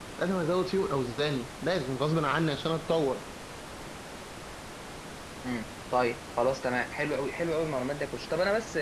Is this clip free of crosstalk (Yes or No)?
Yes